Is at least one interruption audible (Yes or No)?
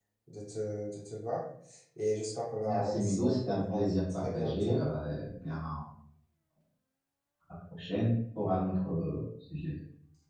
Yes